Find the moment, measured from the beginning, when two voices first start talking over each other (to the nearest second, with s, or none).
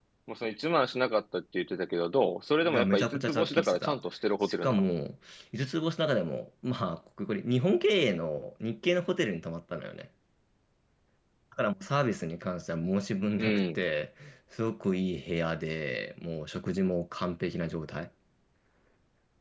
3 s